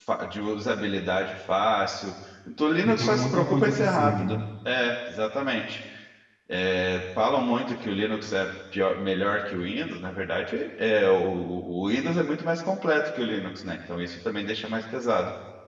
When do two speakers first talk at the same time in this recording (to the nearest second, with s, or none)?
3 s